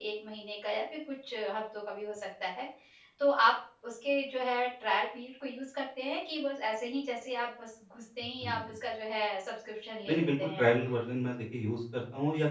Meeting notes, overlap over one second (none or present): none